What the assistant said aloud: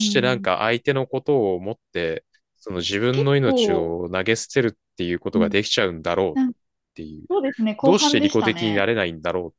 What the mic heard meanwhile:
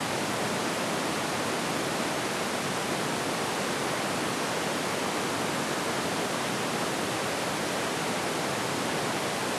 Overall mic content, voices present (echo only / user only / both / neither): neither